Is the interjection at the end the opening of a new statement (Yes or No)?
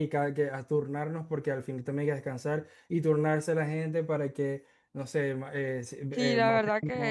Yes